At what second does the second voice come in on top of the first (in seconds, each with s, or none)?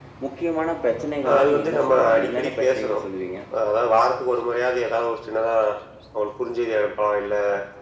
1.2 s